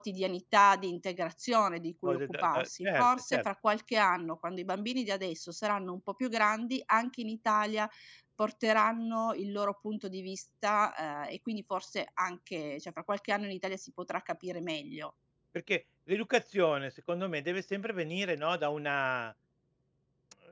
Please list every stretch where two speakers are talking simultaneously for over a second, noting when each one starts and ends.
2.0-3.4

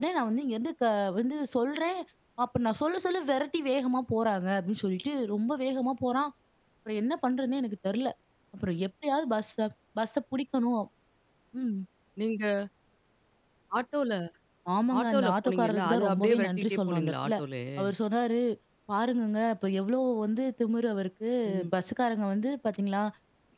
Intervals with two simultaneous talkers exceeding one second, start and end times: 15.0-17.3

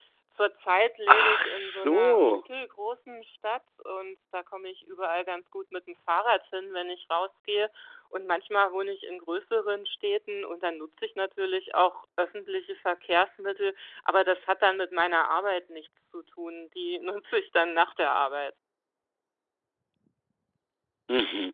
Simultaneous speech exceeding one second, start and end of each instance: 1.1-2.4

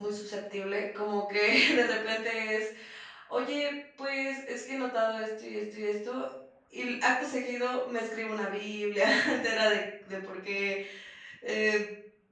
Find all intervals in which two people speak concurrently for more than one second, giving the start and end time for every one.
none

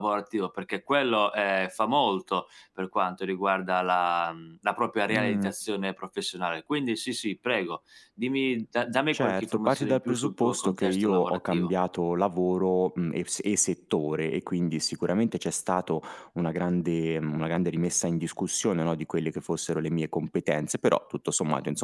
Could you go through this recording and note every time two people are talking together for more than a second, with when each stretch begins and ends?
9.1-11.7

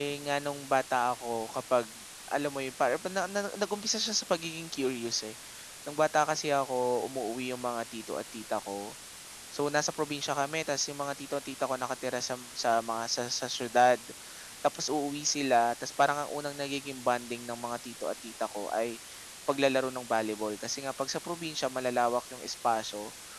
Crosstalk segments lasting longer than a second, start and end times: none

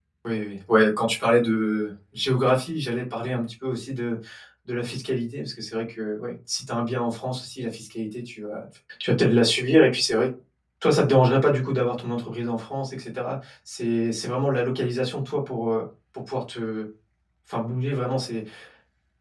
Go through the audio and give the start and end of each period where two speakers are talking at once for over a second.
none

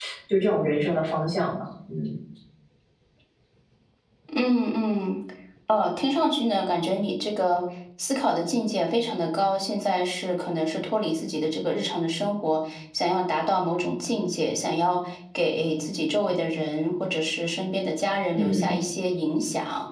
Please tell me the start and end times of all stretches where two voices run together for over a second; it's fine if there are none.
none

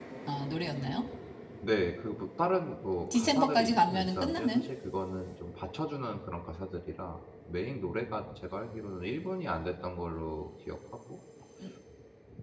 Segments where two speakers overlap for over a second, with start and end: 3.1-4.6

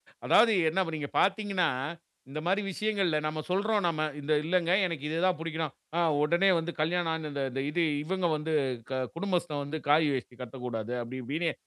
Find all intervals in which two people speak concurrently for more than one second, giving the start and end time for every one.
none

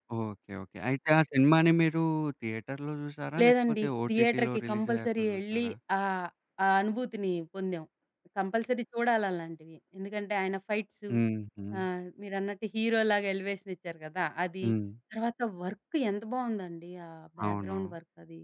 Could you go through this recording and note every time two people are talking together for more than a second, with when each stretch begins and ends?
3.4-5.7

